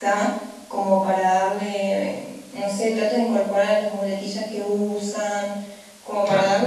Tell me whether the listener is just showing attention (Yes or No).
Yes